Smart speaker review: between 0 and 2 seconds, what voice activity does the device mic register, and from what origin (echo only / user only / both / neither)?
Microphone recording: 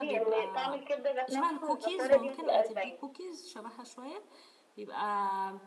both